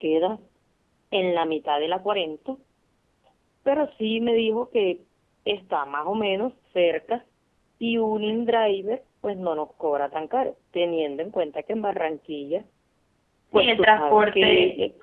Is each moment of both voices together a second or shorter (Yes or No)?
No